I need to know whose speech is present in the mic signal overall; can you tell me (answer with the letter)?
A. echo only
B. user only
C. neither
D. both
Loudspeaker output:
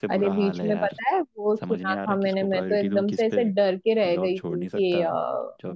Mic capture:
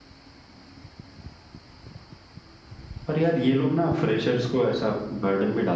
B